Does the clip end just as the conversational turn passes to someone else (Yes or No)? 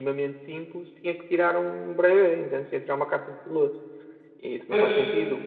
No